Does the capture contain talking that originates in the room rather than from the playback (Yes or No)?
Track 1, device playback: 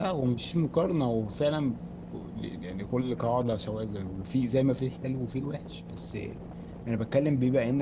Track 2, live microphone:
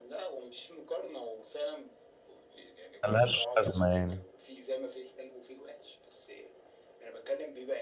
Yes